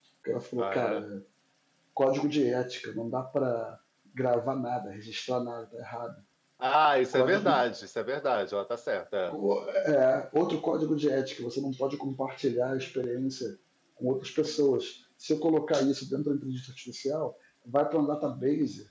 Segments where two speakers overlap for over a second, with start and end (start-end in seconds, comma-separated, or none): none